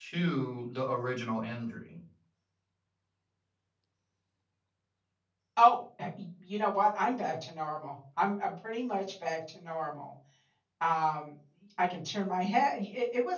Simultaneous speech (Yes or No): No